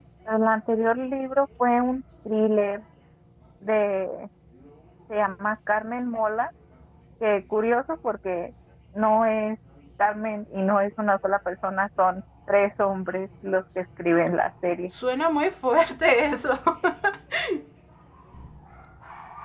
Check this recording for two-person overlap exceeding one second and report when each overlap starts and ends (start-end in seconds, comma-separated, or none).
none